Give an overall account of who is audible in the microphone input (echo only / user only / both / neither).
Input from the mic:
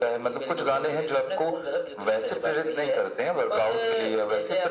echo only